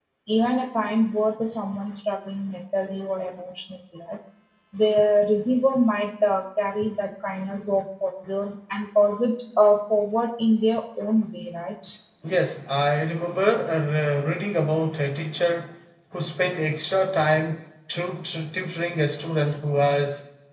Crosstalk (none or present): none